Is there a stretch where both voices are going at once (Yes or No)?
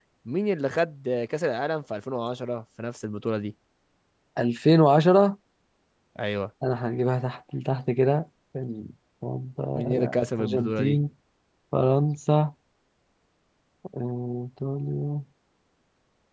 Yes